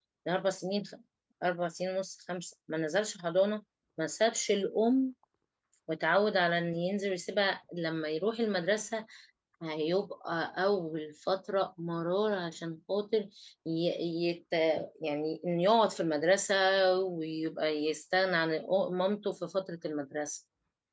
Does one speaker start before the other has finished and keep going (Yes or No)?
No